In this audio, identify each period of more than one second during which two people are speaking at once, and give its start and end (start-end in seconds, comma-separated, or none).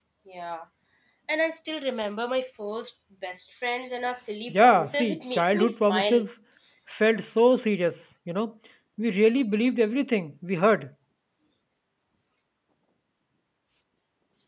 4.5-6.2